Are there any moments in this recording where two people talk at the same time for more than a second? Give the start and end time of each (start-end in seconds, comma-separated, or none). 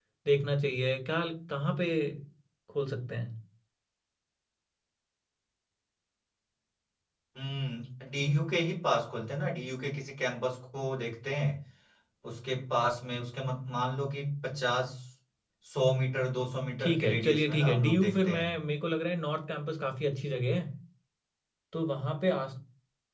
16.8-18.5